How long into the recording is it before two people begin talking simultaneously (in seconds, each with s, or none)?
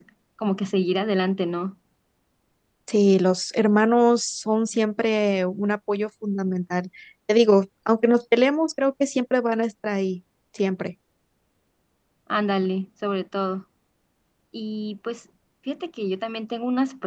none